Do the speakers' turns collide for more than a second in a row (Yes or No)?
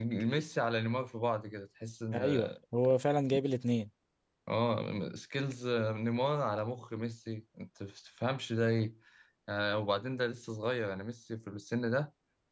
No